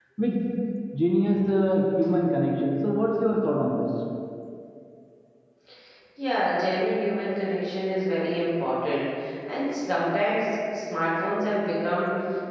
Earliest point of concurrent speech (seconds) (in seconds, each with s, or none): none